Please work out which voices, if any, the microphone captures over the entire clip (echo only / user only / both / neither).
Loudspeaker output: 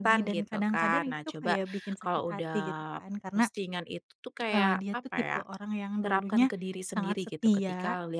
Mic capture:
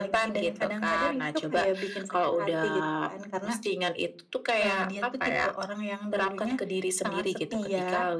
echo only